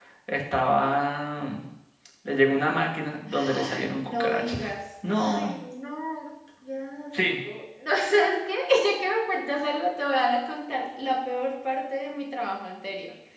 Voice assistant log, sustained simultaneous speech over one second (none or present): present